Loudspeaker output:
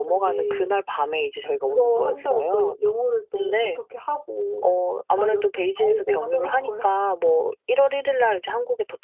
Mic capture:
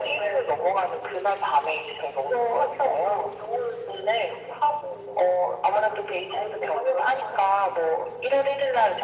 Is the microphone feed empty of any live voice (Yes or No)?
Yes